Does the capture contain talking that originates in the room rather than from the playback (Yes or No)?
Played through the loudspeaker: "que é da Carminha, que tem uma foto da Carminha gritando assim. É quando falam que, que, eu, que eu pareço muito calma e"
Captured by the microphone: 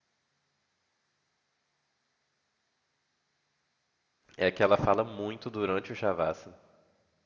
Yes